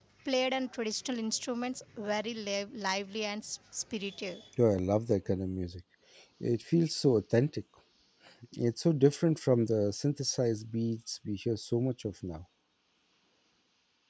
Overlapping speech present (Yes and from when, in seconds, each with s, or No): No